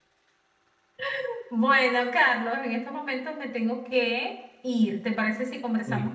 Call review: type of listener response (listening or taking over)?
listening